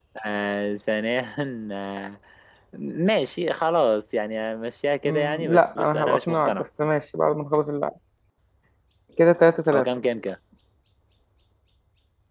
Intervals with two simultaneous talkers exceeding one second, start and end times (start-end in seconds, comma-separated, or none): 5.0-6.6